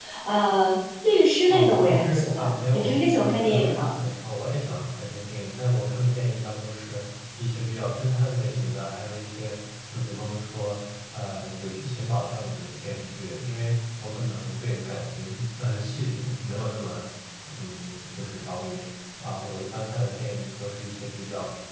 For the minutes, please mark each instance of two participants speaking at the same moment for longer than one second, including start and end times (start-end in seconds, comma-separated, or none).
1.5-3.9